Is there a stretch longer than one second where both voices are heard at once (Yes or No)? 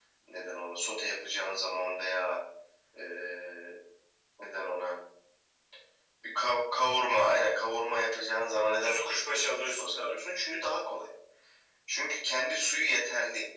Yes